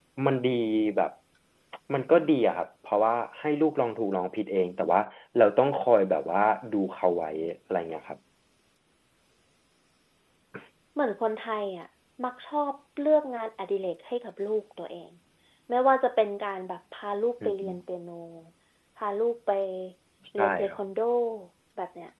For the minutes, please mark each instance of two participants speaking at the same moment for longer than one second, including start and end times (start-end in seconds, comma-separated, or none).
none